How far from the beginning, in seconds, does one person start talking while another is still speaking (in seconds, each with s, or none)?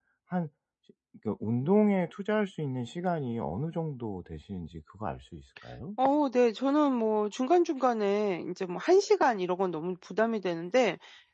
none